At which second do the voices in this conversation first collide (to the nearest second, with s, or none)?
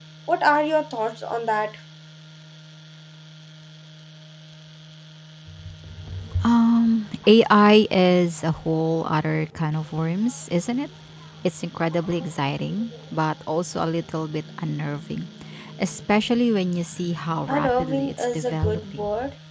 17 s